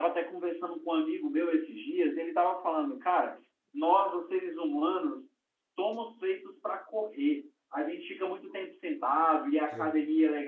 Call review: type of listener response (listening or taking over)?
listening